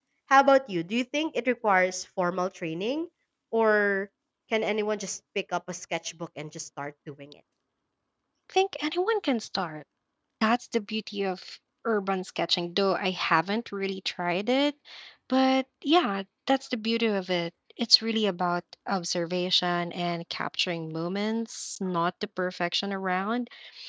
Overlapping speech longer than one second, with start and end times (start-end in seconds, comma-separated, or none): none